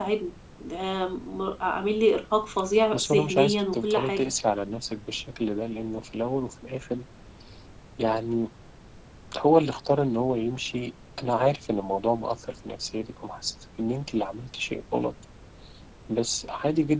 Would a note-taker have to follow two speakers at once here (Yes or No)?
Yes